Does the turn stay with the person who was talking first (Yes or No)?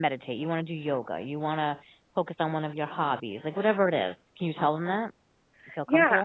No